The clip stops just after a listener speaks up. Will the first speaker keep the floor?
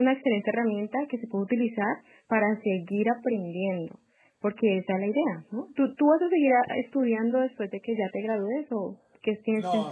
No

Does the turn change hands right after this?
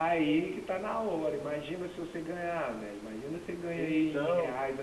No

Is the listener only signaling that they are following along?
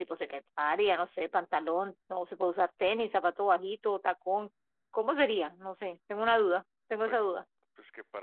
No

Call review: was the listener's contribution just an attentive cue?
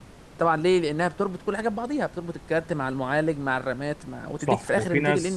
No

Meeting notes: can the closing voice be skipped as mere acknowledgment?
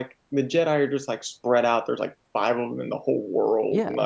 No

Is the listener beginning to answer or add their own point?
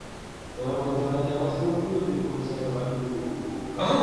Yes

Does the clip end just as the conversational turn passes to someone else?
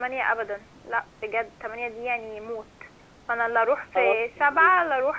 No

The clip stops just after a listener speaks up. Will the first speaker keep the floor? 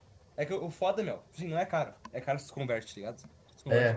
No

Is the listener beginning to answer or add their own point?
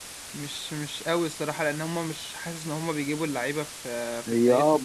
Yes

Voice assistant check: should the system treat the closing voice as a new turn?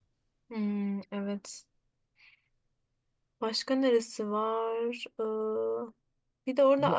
No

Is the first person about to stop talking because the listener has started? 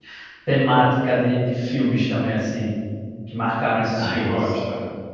Yes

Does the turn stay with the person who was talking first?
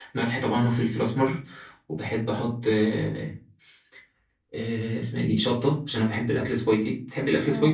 No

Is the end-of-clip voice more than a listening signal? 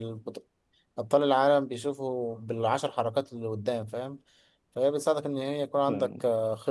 No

